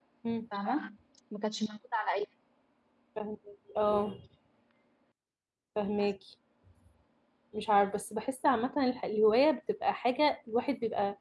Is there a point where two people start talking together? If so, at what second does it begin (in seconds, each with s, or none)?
none